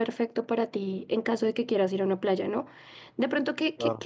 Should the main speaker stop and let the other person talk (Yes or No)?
No